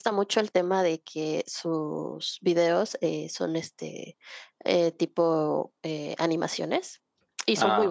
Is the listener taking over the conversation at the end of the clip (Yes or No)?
No